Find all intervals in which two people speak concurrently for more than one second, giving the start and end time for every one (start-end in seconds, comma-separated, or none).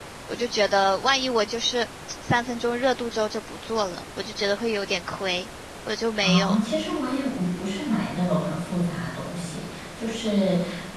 none